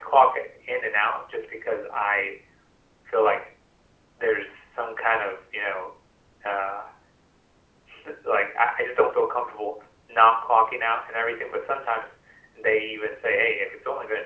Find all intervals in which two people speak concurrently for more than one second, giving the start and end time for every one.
none

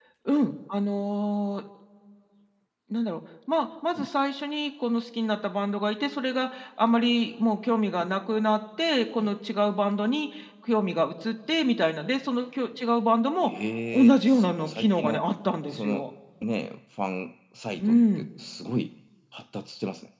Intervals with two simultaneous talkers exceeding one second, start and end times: 13.9-15.2

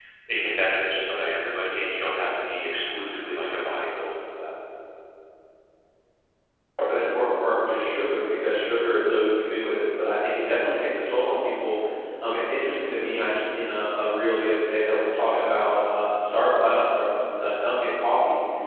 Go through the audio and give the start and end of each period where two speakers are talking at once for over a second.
none

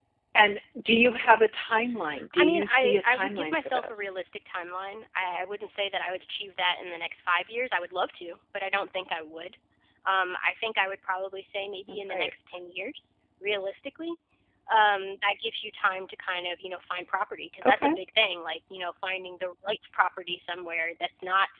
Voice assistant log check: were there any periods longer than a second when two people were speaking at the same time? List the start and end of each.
2.4-4.2

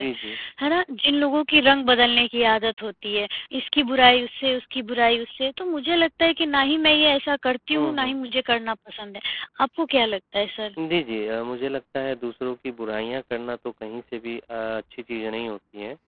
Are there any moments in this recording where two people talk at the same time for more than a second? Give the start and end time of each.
none

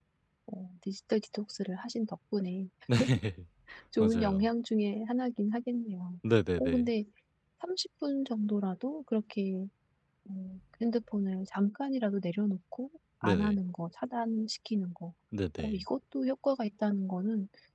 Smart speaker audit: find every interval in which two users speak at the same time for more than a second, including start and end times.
none

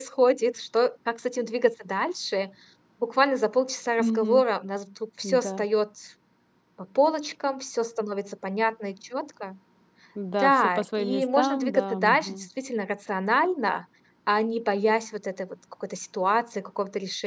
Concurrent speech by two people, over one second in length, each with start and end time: 10.4-12.4

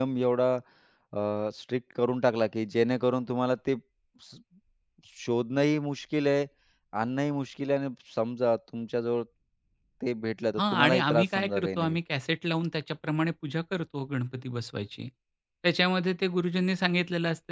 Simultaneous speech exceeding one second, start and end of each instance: 10.6-12.0

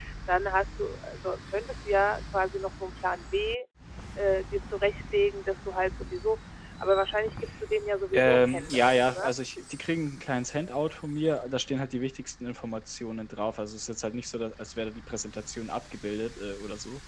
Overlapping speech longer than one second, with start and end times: 8.1-9.3

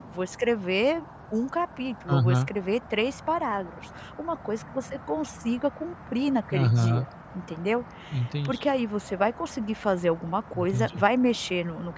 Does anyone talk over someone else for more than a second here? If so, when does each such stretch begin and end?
none

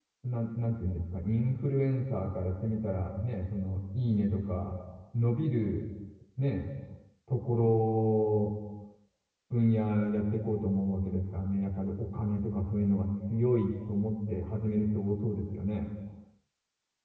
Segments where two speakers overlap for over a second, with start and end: none

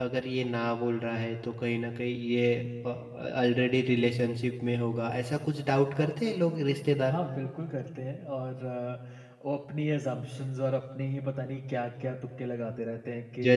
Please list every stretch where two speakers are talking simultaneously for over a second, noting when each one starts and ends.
none

